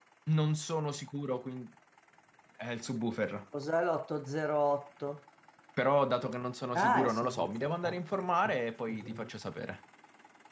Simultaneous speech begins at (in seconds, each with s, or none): 6.8 s